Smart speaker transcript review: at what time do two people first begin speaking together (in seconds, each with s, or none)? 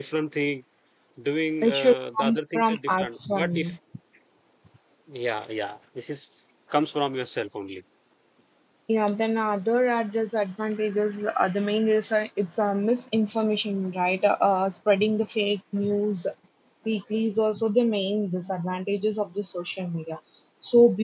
1.6 s